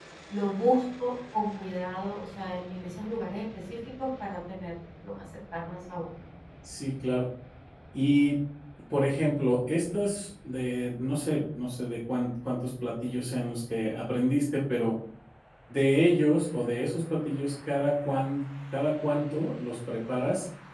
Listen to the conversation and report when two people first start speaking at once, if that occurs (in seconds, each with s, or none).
none